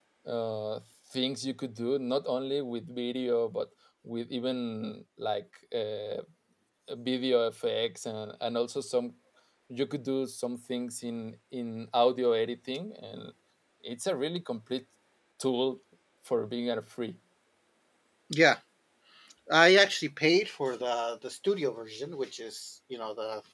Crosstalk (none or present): none